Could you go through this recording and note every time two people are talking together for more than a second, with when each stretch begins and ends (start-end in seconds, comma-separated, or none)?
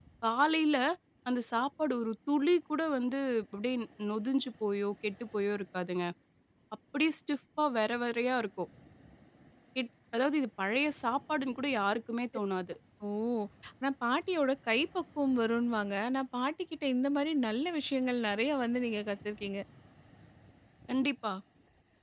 none